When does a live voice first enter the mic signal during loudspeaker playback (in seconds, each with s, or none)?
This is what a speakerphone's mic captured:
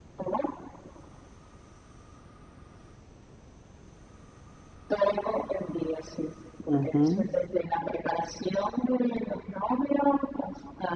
6.7 s